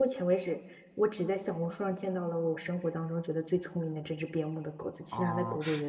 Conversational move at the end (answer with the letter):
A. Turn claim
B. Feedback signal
A